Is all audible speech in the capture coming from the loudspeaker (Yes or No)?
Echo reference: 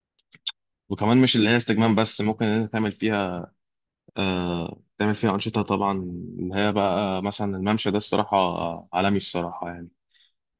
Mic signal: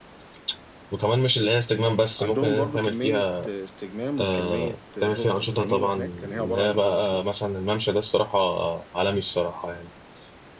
No